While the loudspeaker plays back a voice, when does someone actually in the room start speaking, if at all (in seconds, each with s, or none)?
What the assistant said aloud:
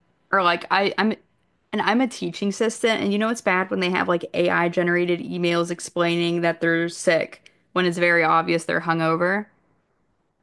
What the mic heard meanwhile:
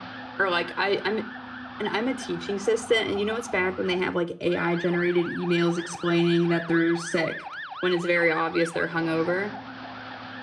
none